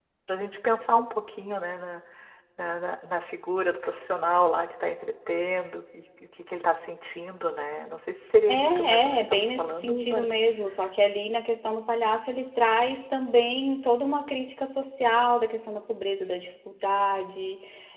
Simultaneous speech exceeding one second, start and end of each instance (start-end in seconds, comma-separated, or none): 8.5-10.3